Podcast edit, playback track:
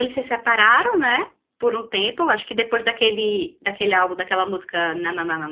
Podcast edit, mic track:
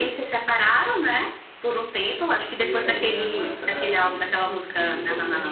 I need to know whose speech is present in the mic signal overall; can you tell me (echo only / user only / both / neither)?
both